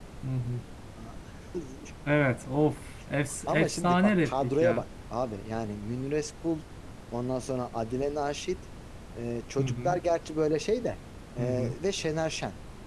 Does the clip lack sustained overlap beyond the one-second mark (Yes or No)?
No